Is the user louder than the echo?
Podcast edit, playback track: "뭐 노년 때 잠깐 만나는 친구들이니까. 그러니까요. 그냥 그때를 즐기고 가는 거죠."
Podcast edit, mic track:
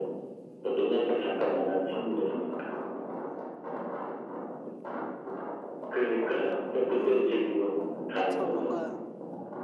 No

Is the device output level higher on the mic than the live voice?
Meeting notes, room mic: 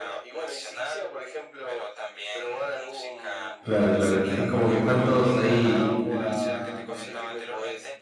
No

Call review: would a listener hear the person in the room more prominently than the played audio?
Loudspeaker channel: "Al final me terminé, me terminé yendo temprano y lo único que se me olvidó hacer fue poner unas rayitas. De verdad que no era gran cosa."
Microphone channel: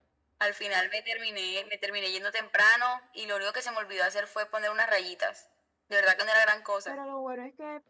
No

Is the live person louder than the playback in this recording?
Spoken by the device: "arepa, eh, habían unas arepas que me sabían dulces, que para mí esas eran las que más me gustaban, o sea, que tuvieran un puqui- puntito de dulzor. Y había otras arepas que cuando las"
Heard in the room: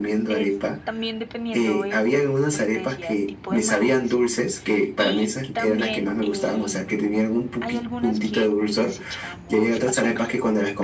No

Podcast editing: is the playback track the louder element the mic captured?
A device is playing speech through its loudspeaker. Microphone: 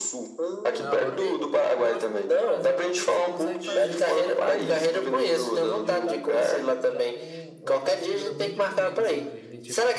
Yes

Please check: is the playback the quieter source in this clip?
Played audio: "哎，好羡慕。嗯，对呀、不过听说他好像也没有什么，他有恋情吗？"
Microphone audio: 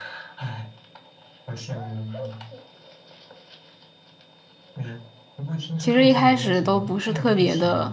Yes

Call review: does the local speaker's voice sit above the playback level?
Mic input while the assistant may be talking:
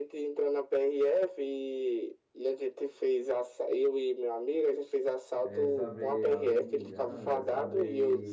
No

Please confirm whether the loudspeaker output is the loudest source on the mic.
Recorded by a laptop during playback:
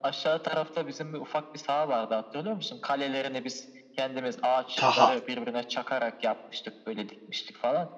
No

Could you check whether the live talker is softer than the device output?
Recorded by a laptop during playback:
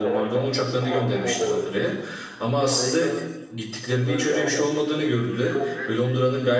No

